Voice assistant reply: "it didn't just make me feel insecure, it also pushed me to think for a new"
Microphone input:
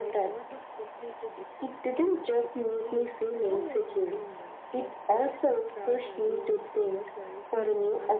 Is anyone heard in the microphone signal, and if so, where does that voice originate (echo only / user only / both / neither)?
both